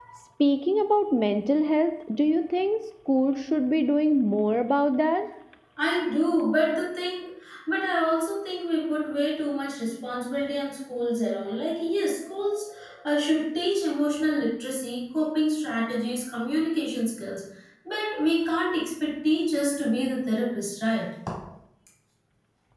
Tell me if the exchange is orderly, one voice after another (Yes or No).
Yes